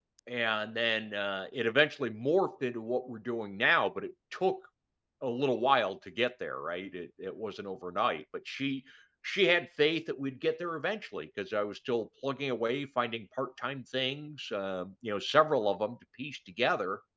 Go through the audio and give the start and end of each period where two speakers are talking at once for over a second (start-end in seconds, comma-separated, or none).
none